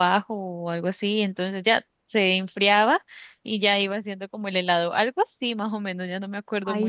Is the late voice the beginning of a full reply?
Yes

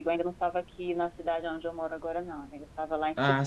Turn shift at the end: No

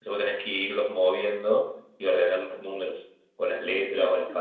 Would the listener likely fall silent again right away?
No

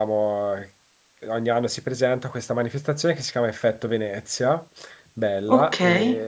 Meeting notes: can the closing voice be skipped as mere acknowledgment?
Yes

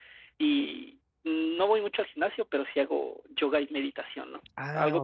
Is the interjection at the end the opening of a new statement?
No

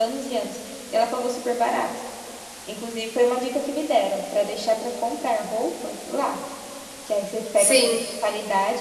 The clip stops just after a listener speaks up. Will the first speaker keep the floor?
Yes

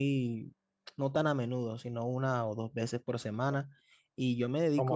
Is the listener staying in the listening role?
Yes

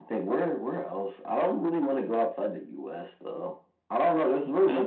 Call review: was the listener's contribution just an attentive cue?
Yes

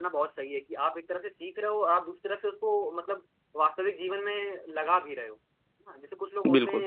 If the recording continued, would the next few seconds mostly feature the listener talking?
No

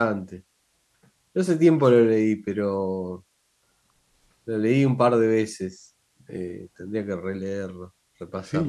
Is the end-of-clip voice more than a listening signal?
Yes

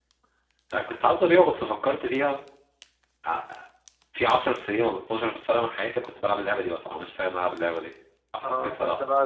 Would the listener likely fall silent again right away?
No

